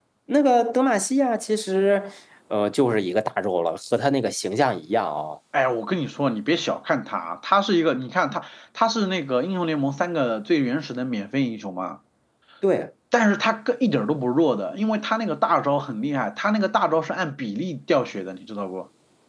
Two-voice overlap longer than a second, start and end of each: none

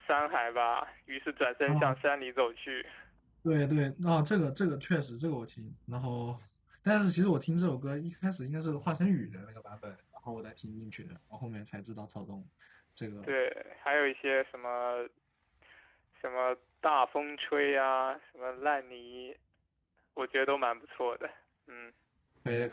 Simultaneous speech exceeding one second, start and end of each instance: none

